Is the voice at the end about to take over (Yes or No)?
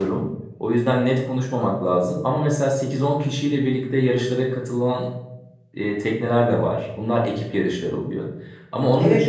No